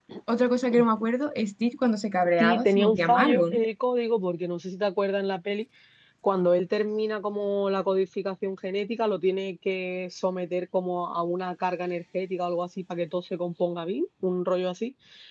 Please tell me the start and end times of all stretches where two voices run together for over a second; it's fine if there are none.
2.4-3.6

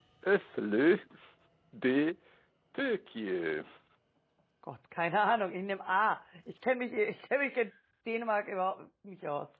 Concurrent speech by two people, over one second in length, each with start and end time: none

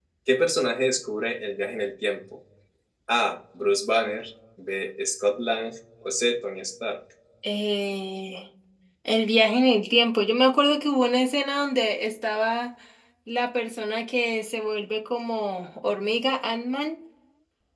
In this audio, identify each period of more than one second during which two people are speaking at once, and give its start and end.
none

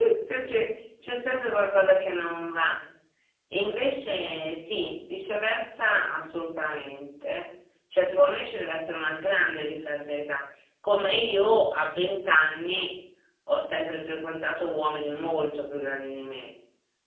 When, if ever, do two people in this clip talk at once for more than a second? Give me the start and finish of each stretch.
none

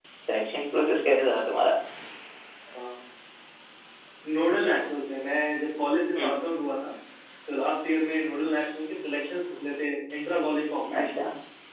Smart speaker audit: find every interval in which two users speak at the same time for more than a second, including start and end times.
none

